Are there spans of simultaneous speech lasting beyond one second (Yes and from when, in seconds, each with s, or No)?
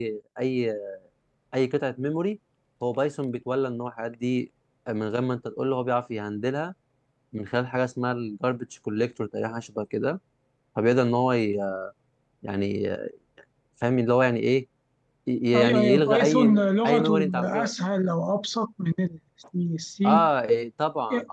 Yes, from 15.6 s